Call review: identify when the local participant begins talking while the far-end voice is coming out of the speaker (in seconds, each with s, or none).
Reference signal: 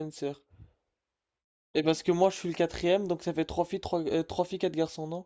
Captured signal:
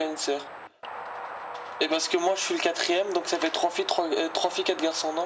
none